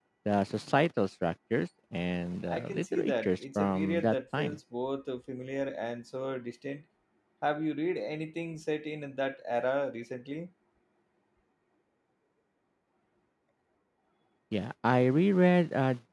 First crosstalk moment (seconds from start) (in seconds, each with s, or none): 2.5 s